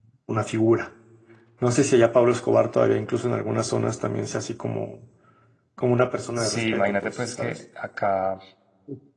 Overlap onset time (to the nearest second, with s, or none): 6 s